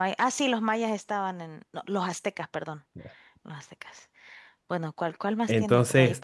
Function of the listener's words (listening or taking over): taking over